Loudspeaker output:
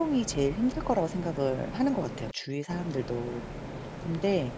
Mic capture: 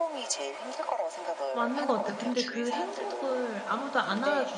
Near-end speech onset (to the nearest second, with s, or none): 2 s